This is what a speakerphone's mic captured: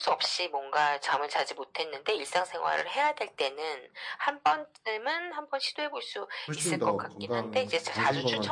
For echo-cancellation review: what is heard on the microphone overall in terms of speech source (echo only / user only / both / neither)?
both